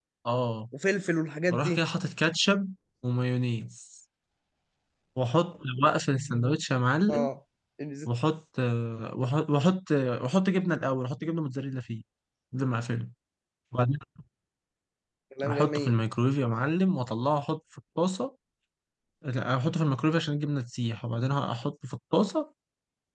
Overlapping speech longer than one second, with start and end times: none

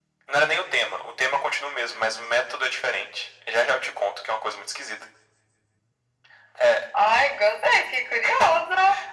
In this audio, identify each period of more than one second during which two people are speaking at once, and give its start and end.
none

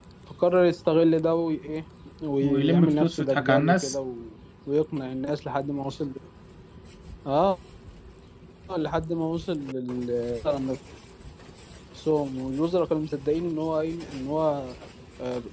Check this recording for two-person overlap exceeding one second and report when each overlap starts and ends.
2.4-4.0

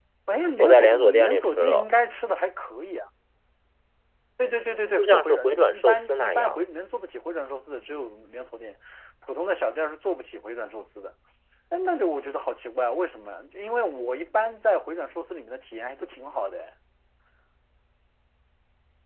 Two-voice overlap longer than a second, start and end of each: 0.6-1.9, 5.0-6.6

